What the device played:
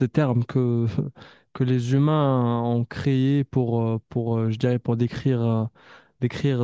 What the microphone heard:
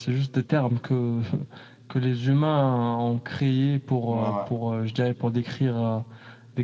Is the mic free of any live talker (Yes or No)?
No